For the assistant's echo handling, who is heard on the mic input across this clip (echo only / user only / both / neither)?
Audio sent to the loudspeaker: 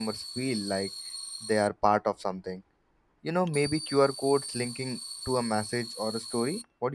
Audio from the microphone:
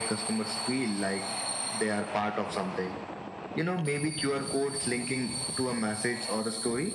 echo only